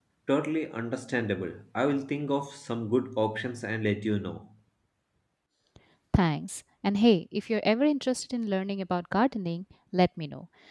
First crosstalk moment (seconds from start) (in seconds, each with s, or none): none